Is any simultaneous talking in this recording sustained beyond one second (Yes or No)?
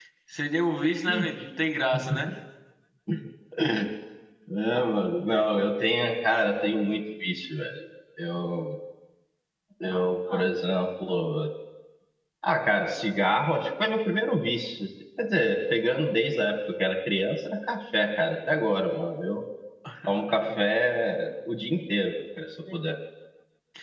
No